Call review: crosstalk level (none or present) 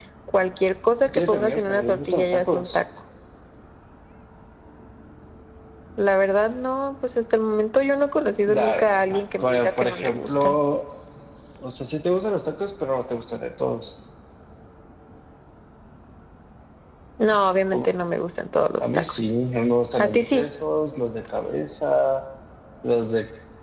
present